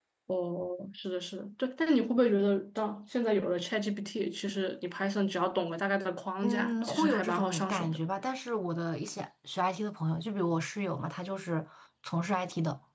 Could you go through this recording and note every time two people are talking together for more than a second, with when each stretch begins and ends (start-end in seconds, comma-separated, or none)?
6.4-8.0